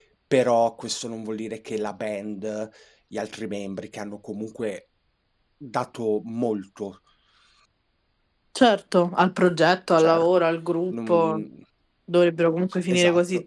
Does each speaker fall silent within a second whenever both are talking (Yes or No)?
Yes